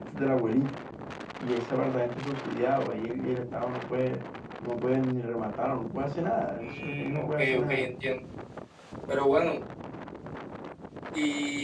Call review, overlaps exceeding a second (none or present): present